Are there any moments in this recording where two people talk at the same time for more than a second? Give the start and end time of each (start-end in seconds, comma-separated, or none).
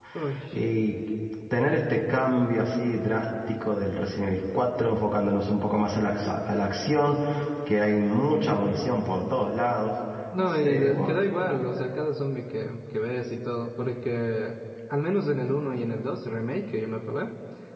10.4-11.6